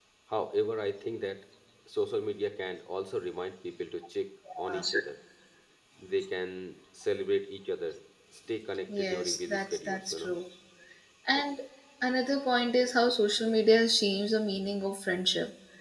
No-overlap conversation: No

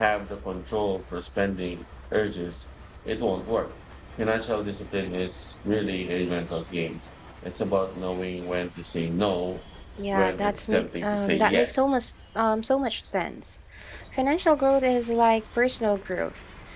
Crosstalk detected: Yes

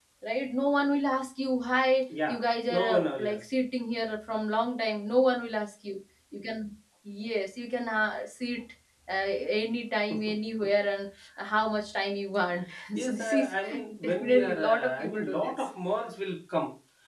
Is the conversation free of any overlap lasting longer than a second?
No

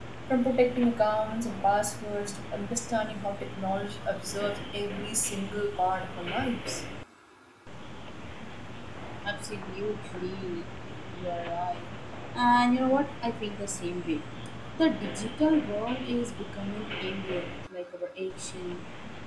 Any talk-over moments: No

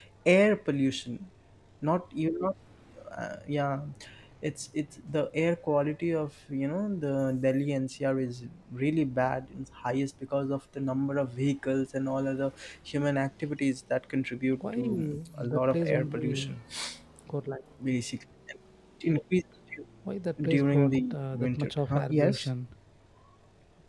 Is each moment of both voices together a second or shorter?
No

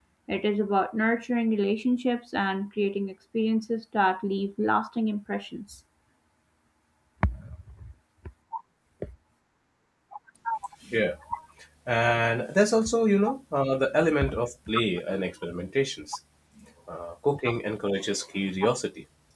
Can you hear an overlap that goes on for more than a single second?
No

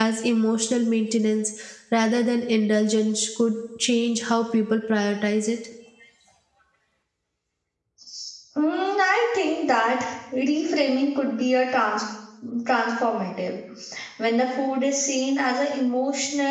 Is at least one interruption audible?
No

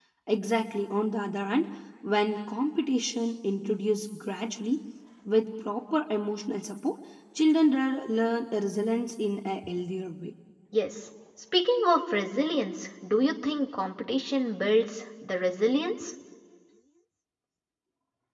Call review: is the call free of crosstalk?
Yes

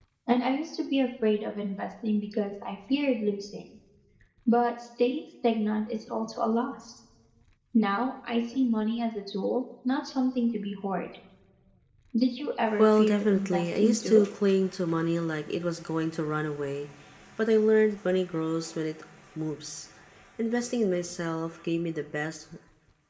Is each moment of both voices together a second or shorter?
No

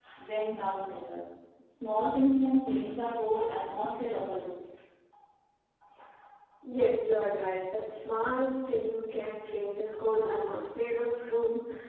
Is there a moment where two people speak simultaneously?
No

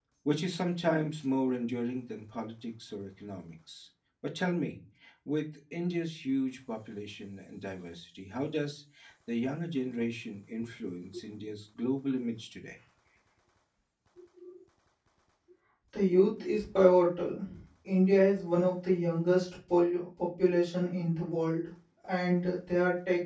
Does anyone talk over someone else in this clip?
No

